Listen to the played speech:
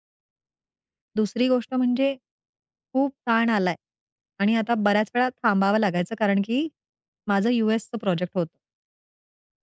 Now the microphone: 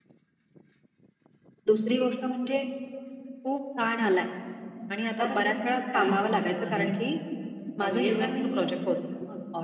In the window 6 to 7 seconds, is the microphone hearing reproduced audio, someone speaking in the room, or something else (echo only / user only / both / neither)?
both